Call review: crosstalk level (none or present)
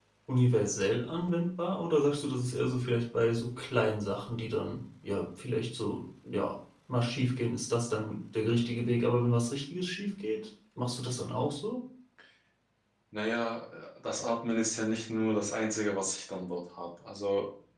none